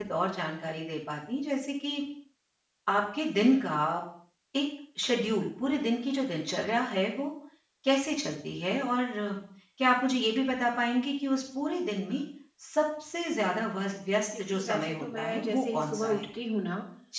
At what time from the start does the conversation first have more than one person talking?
14.3 s

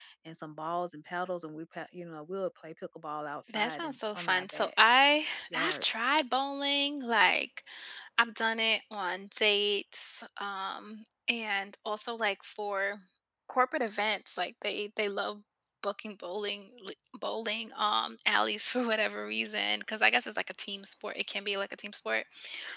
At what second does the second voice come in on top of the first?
3.5 s

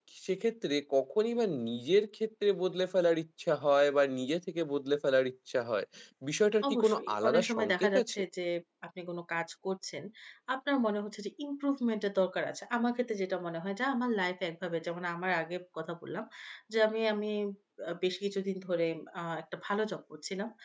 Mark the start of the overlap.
6.7 s

